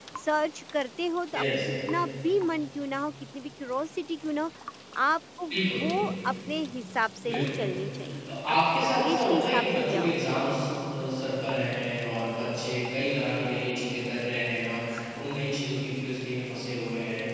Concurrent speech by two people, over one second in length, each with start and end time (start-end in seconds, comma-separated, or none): 8.2-10.1